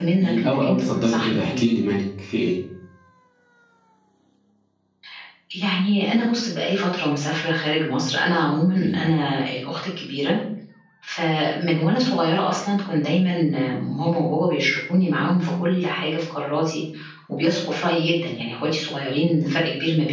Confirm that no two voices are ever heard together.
No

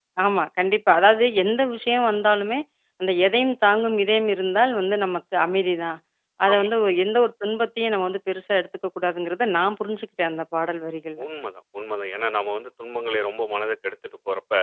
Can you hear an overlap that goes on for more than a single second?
No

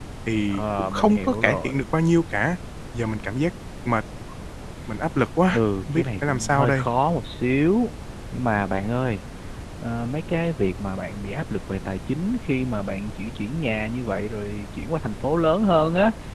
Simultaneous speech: Yes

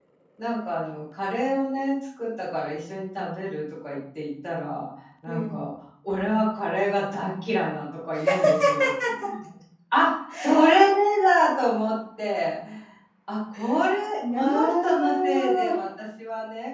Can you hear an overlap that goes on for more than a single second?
Yes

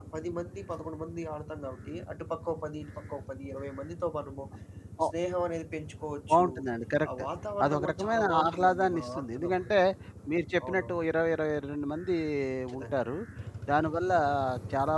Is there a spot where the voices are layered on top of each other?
Yes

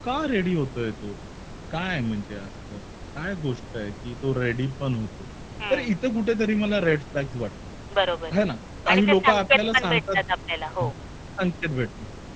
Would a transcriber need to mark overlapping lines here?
Yes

